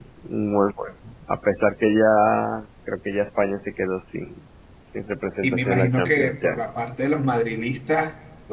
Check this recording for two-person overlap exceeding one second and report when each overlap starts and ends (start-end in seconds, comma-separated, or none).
5.4-6.7